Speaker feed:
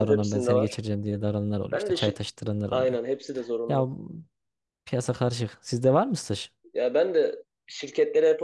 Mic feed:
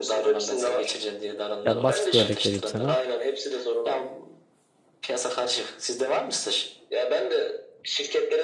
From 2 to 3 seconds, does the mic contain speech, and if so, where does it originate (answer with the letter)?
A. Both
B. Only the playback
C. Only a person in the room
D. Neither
A